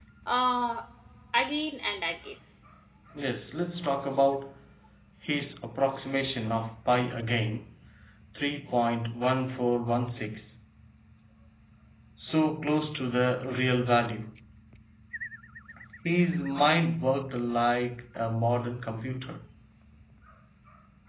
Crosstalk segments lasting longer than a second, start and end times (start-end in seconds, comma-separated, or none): none